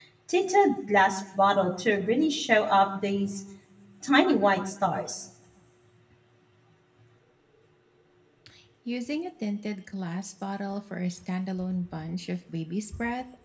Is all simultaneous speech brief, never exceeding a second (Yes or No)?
Yes